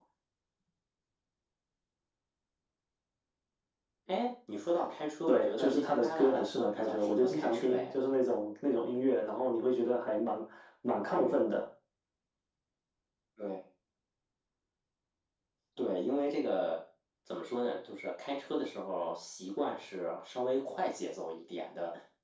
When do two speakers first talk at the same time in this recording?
5.3 s

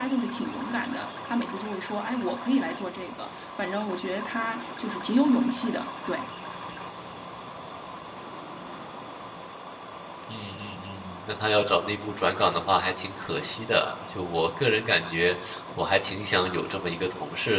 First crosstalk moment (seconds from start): none

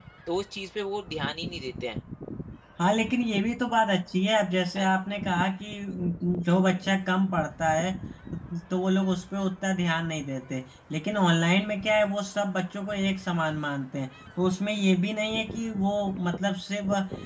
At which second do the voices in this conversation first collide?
none

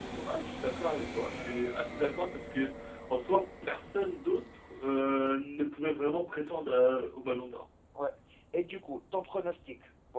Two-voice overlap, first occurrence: none

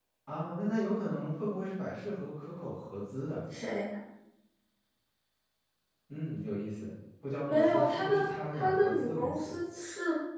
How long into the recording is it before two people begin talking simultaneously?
7.5 s

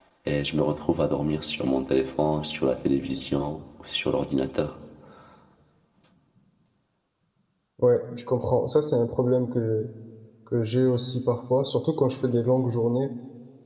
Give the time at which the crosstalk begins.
none

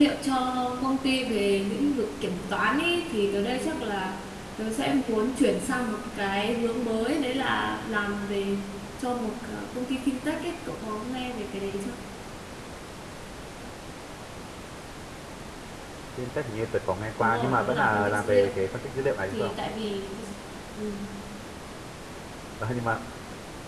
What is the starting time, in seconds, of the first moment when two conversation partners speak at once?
17.2 s

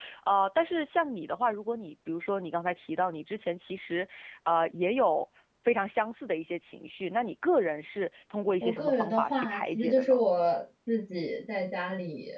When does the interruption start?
8.6 s

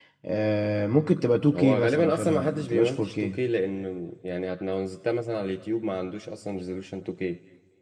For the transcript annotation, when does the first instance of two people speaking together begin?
1.5 s

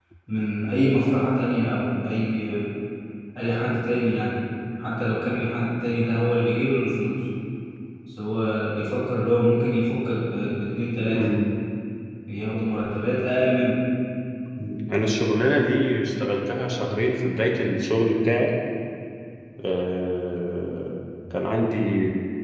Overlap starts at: none

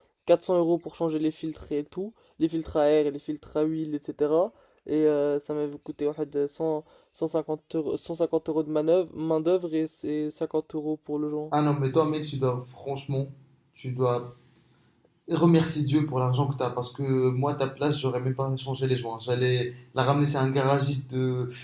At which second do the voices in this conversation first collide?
none

